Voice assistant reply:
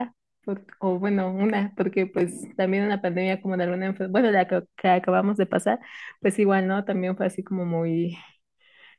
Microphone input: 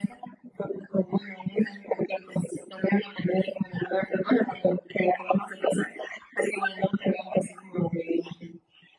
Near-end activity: none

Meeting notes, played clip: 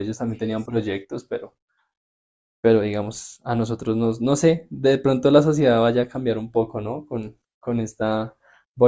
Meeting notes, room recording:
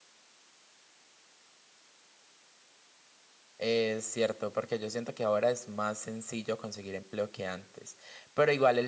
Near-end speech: present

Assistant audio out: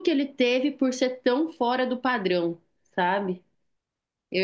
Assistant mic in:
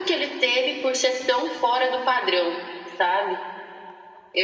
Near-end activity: none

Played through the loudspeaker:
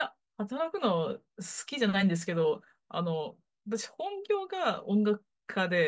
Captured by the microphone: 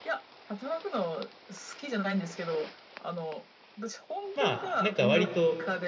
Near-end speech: present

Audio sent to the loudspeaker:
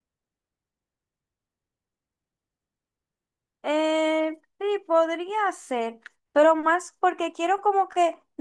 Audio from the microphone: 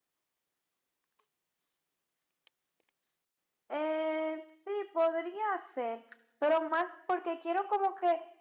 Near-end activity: none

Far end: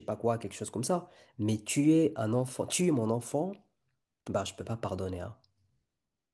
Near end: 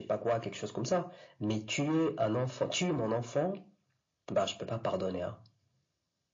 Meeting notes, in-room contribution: none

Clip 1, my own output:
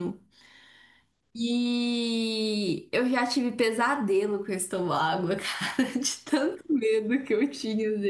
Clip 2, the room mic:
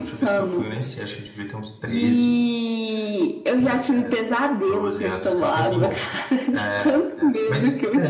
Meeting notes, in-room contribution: present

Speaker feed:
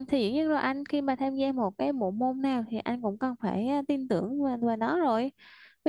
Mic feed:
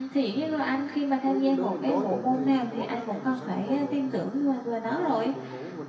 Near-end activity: present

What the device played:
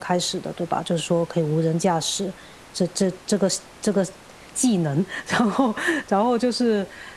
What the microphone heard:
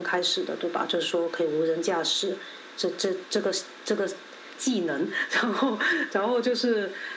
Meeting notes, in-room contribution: none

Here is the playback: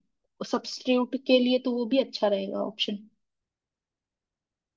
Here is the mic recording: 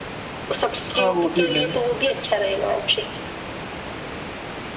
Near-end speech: present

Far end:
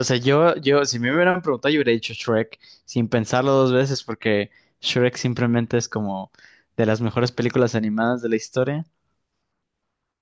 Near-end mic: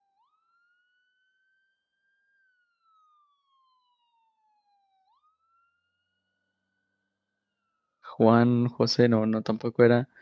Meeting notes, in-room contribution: present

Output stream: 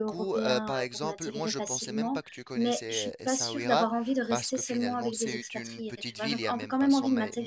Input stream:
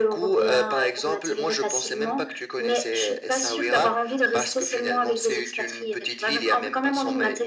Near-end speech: none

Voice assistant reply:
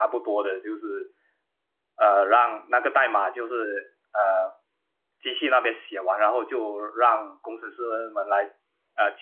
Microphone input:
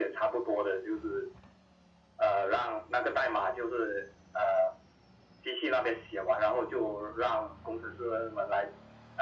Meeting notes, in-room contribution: none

